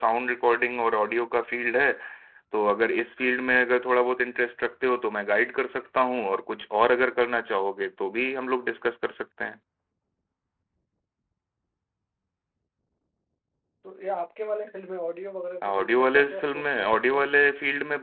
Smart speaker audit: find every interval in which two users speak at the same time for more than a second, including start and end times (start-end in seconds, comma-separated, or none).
15.6-17.2